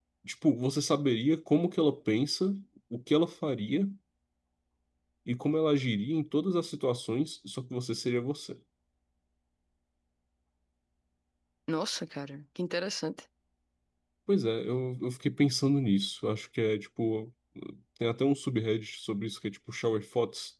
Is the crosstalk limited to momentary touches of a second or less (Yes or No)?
Yes